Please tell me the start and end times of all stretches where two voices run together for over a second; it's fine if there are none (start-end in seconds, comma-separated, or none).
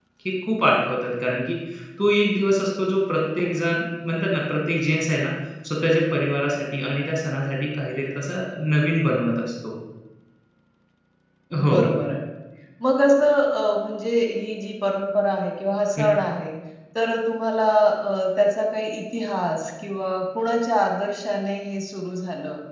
none